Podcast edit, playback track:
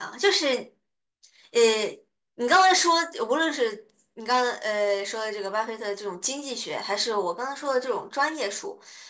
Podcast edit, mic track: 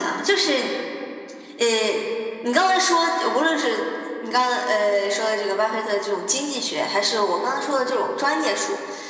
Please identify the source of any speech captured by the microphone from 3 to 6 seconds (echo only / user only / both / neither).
echo only